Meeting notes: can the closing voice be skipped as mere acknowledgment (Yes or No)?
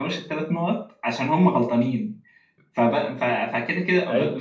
Yes